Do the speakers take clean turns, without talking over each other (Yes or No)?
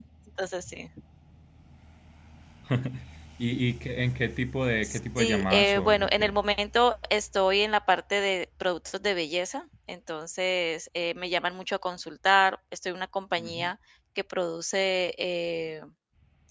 No